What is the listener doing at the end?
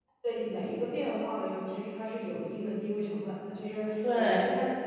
listening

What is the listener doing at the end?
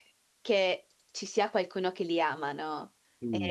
taking over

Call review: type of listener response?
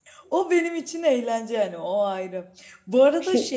listening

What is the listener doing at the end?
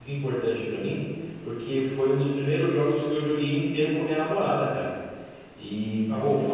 listening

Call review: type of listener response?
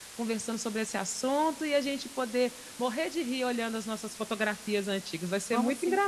taking over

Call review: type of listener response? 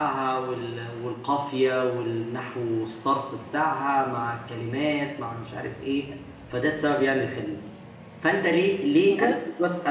listening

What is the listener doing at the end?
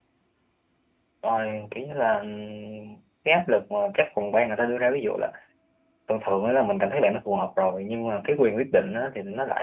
listening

